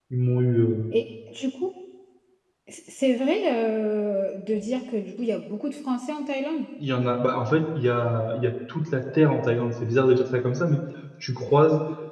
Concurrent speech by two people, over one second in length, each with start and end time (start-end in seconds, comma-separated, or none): none